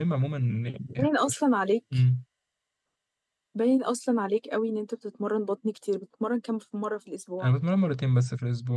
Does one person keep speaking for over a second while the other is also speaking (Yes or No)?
No